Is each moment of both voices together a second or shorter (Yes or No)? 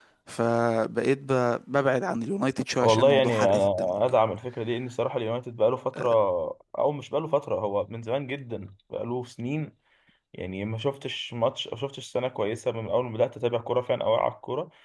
No